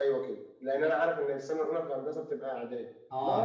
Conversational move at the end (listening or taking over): listening